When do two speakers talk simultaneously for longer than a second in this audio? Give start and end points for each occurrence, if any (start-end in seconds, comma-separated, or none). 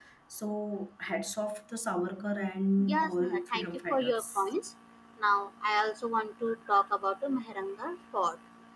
2.9-4.4